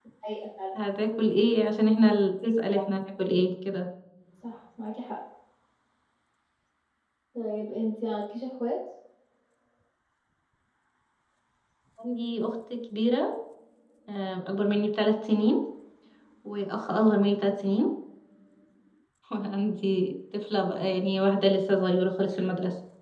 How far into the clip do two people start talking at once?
none

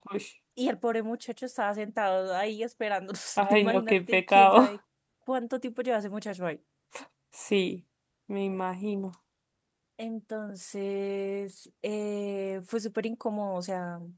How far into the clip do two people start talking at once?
3.4 s

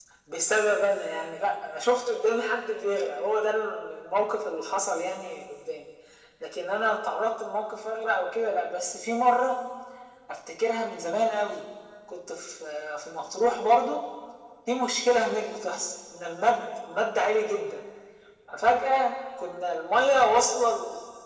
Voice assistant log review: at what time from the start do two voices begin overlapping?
none

